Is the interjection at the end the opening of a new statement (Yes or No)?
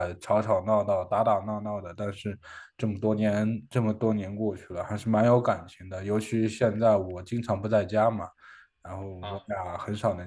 No